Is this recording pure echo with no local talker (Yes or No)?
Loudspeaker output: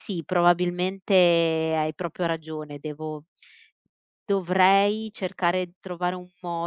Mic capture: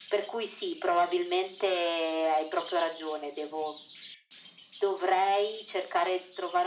Yes